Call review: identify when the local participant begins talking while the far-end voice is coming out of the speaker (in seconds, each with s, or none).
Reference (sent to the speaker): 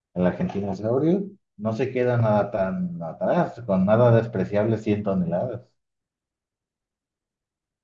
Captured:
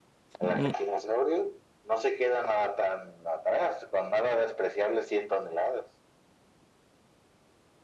0.4 s